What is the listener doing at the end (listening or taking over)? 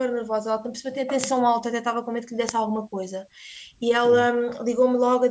listening